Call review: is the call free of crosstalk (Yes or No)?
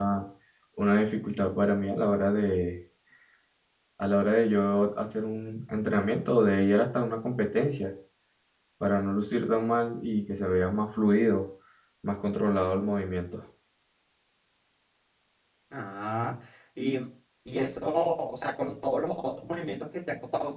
Yes